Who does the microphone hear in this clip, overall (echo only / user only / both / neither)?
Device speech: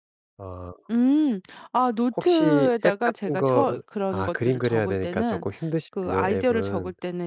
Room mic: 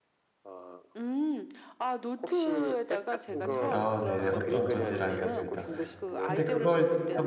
both